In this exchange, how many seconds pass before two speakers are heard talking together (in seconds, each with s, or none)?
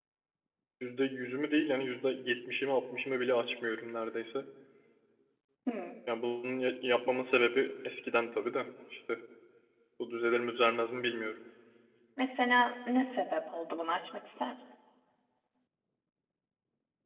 none